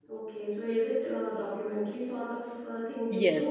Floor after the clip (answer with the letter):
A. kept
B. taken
B